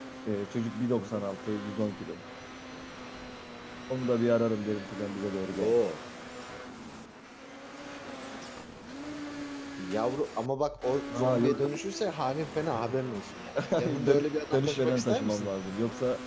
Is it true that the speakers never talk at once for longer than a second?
No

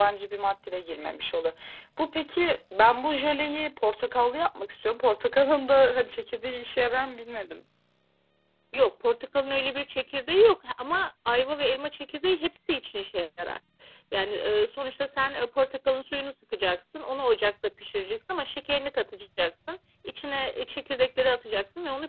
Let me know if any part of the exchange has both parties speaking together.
No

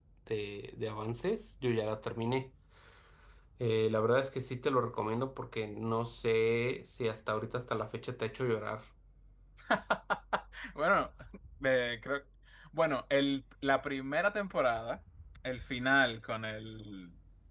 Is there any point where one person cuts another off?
No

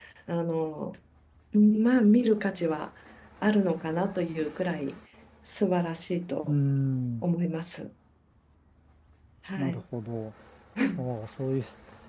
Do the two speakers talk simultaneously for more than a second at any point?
No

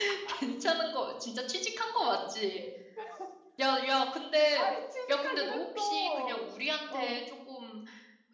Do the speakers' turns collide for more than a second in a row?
Yes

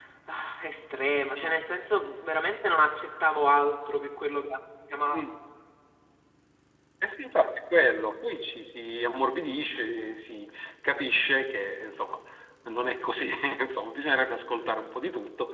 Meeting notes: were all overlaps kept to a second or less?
Yes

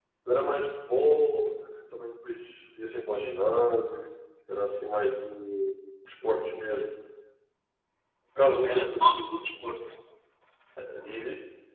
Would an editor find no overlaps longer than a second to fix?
No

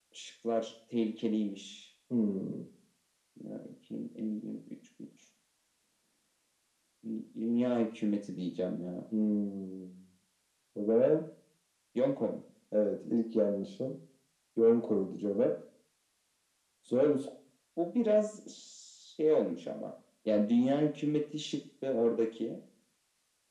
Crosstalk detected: No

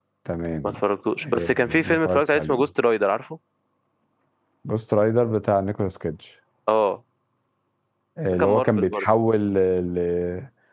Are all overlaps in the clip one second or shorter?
No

